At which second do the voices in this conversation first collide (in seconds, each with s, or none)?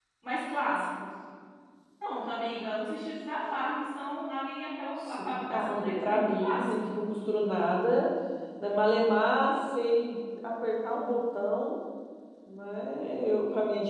5.0 s